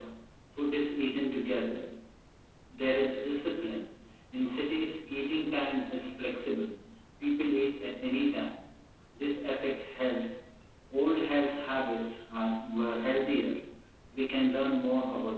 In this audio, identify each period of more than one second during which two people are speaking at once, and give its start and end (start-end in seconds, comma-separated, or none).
none